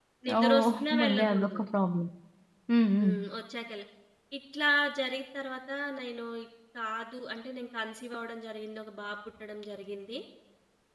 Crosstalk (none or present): present